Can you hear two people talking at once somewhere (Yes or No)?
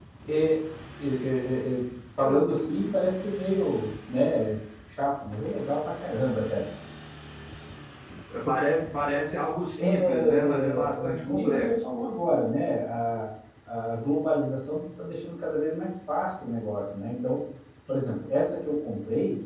Yes